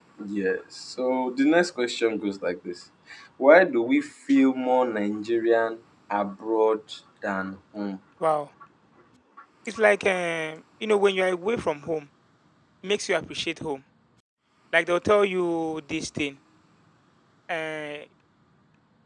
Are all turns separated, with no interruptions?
Yes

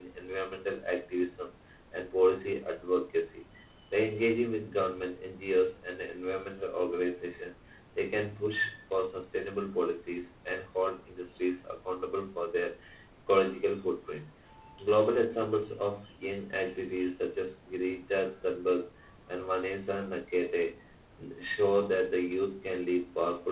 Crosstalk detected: No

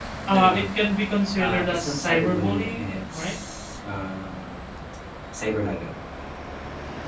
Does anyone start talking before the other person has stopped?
Yes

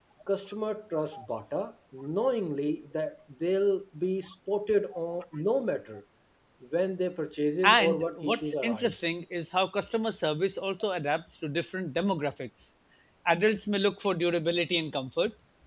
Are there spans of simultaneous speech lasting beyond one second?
Yes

